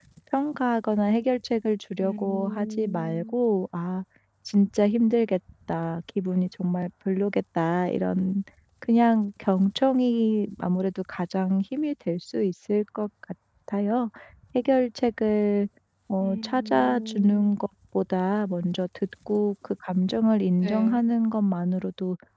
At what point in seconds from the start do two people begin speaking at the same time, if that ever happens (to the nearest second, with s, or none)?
2 s